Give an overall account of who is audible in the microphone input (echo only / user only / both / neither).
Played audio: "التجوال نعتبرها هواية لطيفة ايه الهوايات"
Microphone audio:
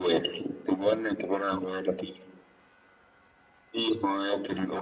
echo only